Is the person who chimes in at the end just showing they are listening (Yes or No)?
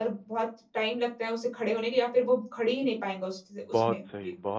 No